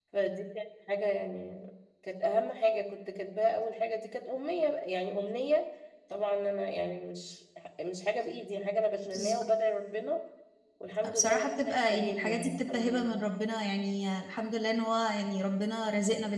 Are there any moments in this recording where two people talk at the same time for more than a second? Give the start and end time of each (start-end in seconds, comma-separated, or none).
11.1-13.2